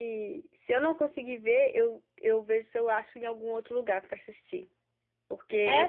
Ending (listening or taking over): taking over